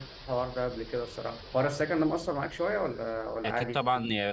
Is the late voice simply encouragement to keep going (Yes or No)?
No